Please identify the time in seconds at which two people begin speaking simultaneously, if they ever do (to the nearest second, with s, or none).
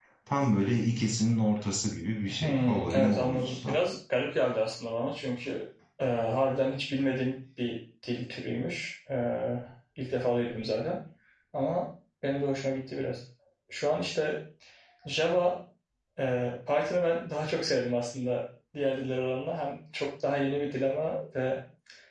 2 s